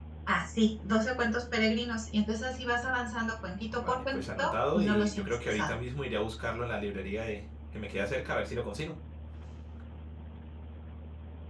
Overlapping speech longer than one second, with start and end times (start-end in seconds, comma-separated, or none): 3.7-5.8